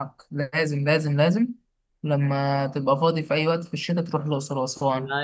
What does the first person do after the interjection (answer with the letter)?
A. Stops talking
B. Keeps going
A